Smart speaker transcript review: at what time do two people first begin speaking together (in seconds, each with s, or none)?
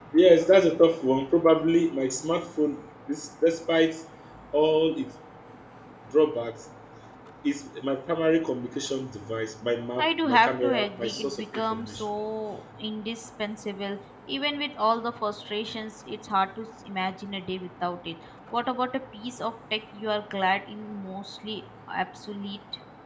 10.0 s